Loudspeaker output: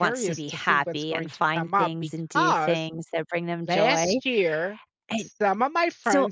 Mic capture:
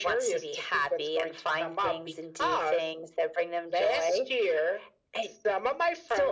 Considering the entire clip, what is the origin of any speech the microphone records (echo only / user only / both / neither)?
echo only